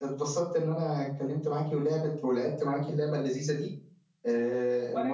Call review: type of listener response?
listening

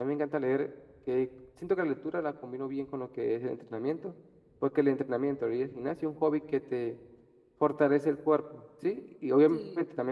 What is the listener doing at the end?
listening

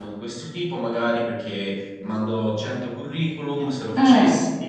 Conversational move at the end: listening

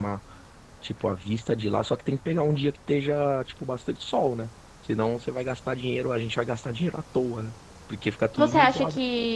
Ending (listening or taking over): taking over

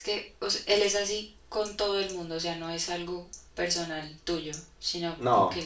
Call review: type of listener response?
listening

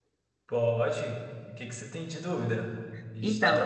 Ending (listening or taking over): listening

